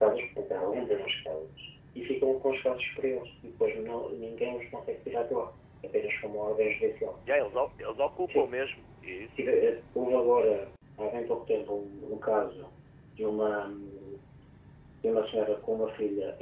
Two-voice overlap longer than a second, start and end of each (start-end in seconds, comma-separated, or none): none